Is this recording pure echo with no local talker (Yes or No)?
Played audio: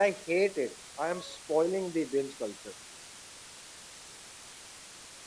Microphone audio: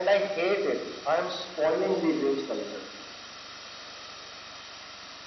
Yes